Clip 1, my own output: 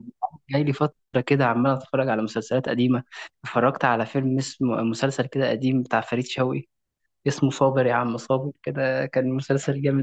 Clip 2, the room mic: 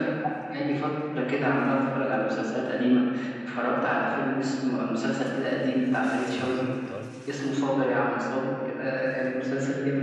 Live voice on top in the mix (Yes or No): No